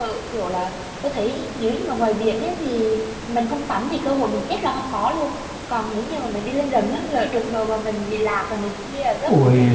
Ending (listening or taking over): taking over